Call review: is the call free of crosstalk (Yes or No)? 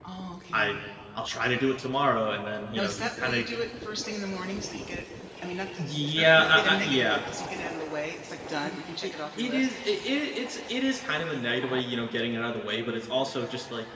No